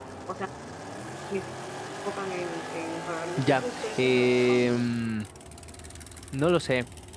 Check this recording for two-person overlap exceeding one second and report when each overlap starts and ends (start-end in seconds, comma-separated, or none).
3.5-5.1